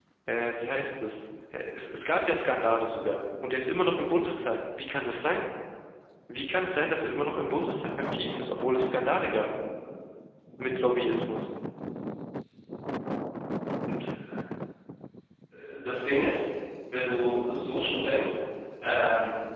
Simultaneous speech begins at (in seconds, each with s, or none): none